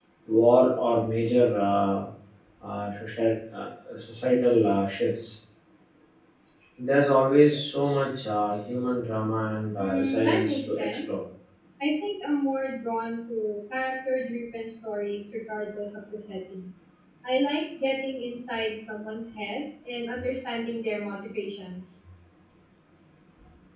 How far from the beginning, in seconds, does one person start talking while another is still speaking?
9.8 s

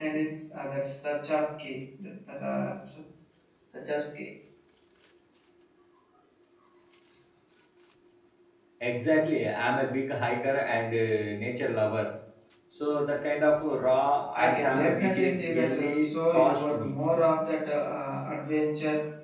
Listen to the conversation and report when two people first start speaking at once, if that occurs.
14.3 s

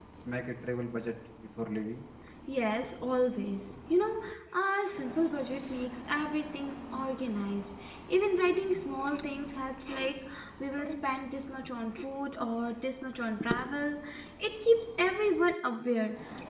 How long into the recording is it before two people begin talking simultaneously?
none

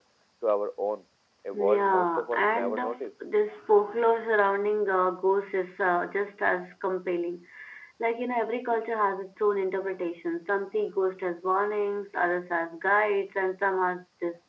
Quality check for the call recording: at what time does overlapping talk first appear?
1.5 s

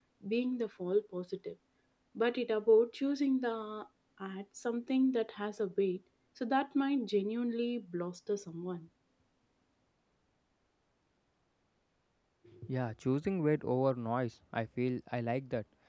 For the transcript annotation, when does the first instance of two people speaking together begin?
none

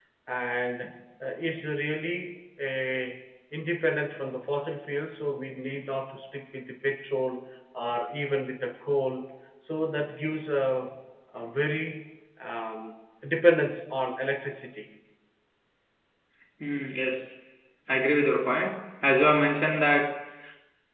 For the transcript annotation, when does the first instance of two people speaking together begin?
none

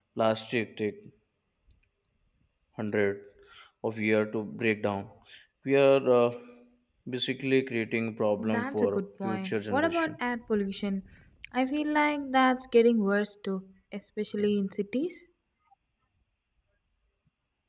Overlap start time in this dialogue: 8.4 s

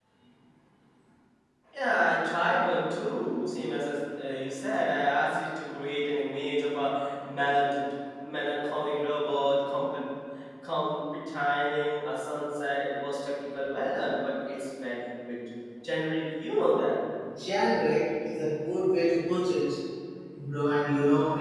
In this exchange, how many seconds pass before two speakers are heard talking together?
none

